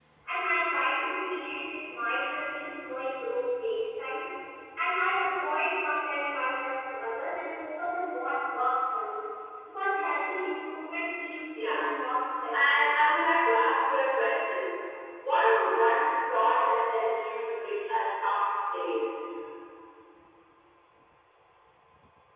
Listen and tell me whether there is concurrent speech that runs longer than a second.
No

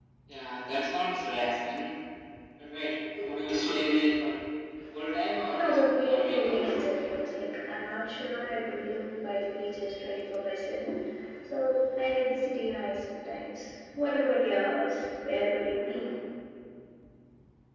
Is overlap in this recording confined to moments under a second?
No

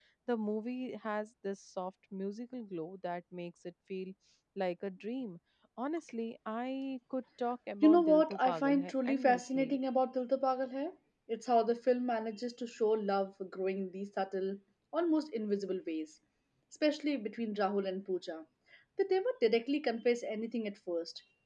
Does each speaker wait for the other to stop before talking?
No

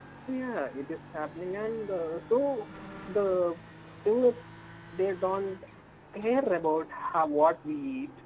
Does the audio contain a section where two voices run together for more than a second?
No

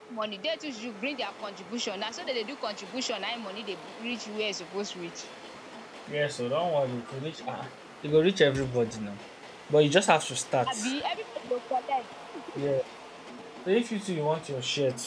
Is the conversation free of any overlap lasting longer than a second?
Yes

